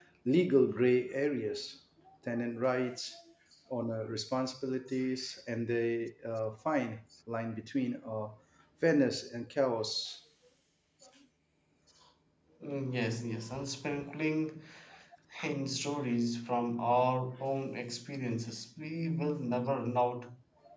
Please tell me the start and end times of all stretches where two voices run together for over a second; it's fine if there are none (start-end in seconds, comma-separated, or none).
none